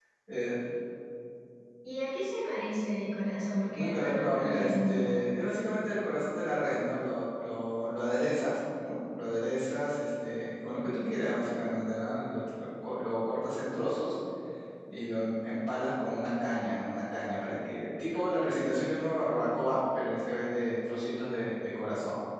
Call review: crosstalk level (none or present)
present